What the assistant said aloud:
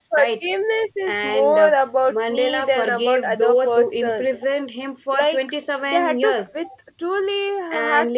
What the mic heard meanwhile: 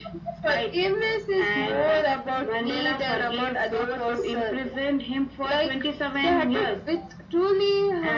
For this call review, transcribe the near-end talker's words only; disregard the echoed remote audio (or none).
none